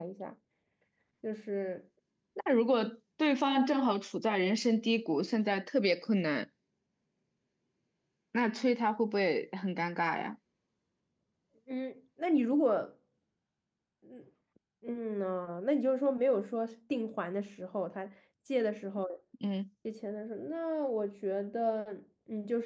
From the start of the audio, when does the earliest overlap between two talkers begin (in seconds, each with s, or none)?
none